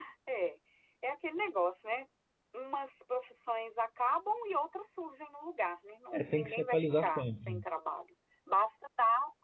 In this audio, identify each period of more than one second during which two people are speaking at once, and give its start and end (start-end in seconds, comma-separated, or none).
6.1-7.6